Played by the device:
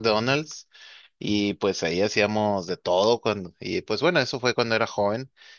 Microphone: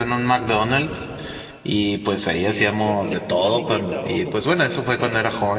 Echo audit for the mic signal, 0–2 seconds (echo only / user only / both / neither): echo only